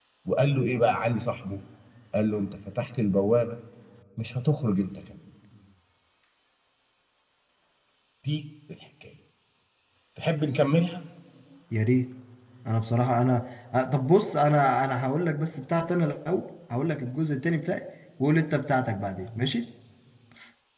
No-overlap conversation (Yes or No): Yes